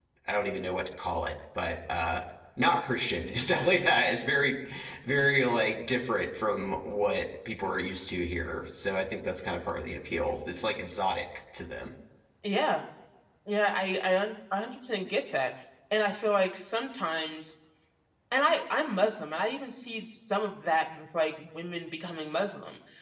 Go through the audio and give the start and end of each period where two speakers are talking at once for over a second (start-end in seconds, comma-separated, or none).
none